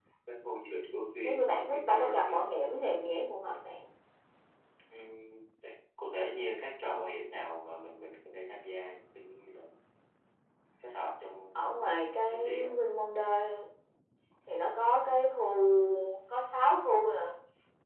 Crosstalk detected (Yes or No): Yes